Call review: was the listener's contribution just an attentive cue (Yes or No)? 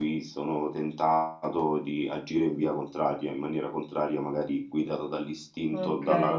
No